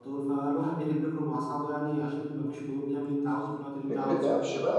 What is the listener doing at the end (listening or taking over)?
taking over